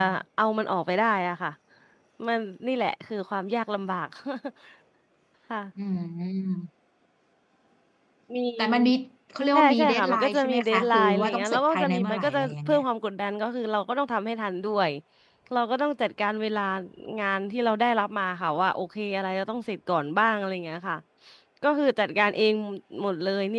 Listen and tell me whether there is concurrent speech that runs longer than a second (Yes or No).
Yes